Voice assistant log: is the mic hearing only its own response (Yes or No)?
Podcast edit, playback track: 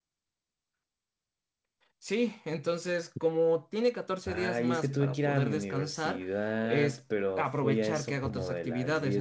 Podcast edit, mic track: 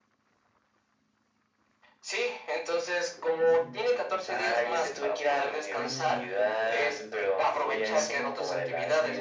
No